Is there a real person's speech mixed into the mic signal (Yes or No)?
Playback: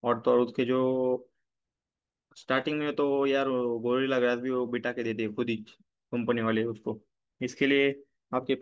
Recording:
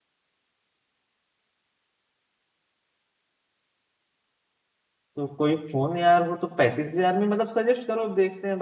Yes